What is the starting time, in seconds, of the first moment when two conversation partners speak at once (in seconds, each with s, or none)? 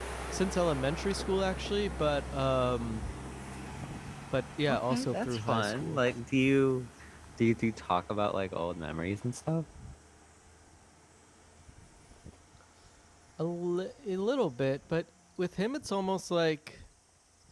4.7 s